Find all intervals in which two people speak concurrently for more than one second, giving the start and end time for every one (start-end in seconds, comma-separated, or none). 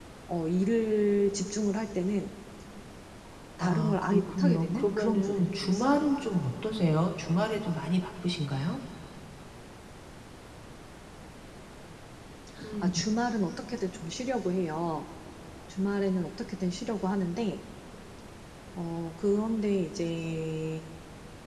3.6-6.0